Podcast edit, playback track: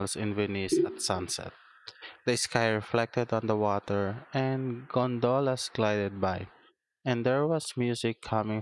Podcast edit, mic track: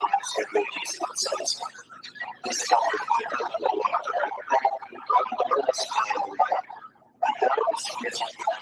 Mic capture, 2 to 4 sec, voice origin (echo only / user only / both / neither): echo only